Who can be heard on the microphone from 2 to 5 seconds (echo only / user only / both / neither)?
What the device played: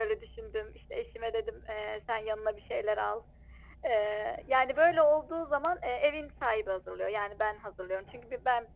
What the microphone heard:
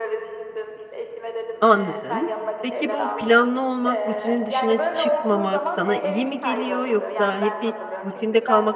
both